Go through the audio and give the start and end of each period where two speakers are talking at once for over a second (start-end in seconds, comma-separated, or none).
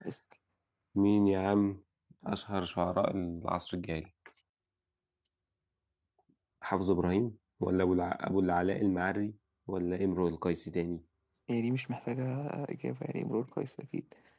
none